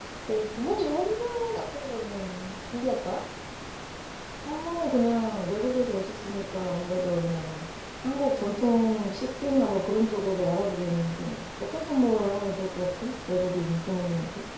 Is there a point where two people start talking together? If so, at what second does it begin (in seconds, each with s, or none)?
none